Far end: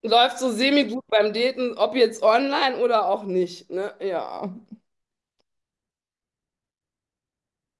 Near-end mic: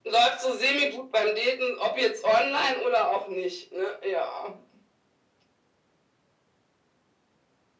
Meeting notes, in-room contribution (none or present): none